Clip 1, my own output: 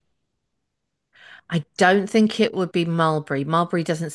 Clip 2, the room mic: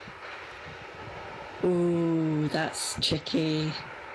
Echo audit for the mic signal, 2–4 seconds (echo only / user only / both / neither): user only